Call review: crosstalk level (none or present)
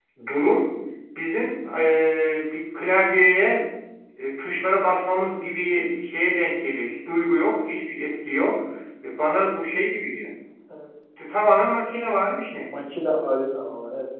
none